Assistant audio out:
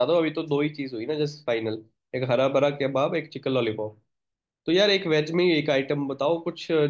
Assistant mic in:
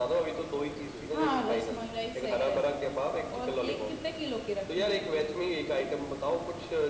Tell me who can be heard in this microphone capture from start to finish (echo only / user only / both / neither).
both